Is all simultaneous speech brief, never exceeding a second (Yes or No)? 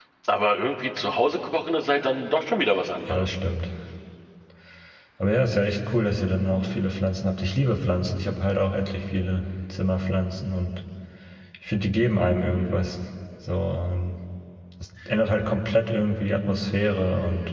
Yes